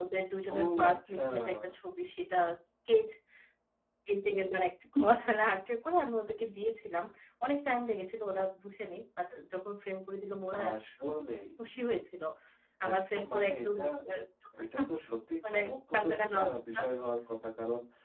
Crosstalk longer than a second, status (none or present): present